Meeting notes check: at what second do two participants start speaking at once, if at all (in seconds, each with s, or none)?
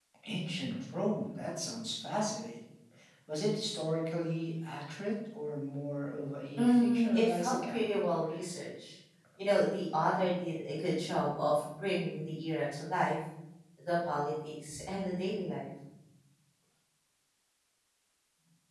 6.6 s